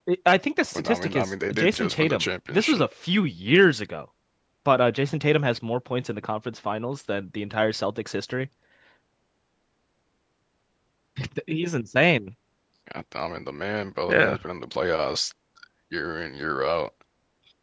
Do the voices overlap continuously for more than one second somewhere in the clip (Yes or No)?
Yes